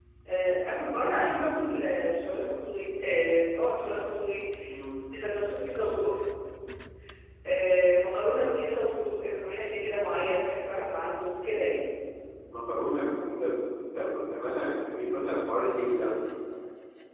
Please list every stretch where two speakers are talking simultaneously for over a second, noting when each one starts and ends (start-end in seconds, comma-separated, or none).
none